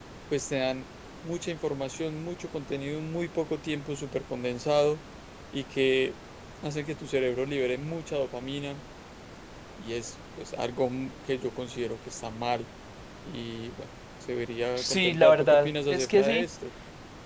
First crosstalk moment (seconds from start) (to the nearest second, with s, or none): 15 s